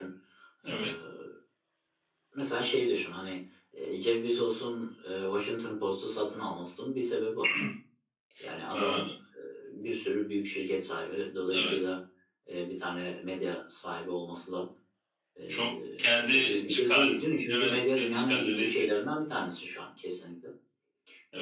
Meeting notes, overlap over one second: present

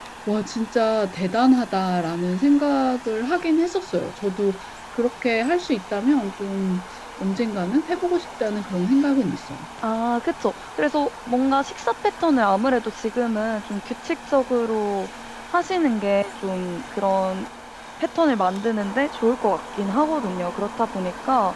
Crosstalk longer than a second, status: none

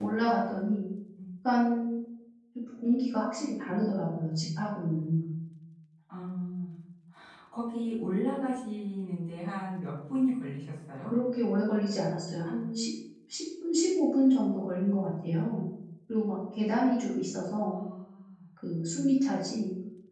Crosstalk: none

